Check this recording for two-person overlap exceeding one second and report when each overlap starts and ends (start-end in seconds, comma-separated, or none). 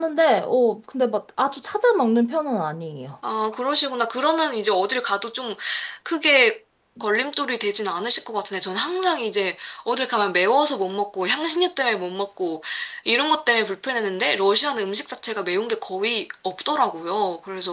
none